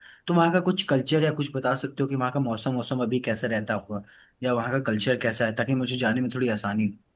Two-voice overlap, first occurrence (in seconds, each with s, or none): none